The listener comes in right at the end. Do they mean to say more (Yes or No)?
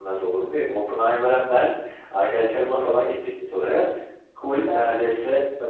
No